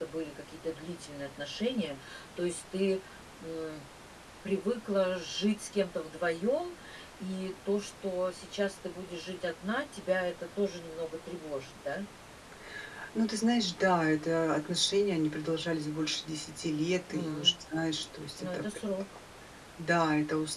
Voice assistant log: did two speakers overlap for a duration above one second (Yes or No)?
No